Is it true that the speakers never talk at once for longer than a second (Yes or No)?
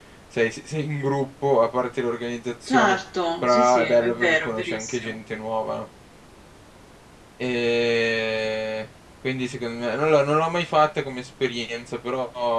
No